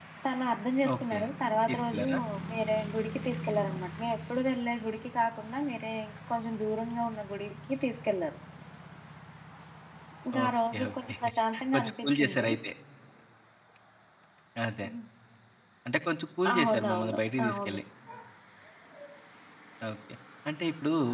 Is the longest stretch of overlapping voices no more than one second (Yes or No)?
No